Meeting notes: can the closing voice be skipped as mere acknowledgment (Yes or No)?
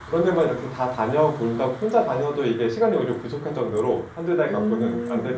No